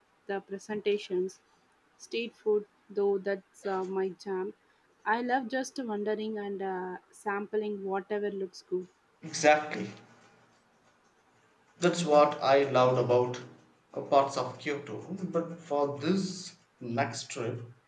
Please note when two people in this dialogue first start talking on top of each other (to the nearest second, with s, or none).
none